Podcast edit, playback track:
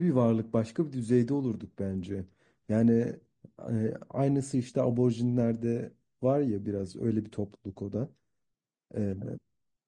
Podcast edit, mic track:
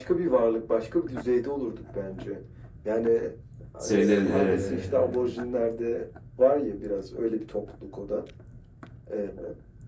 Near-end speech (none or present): present